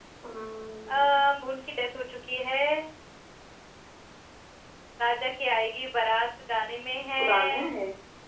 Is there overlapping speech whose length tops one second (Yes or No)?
No